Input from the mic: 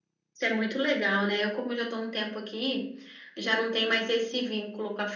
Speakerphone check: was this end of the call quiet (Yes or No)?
Yes